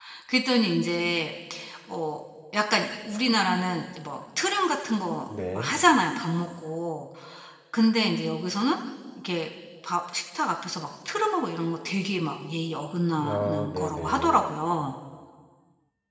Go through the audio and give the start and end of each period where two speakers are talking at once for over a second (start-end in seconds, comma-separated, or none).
13.3-14.5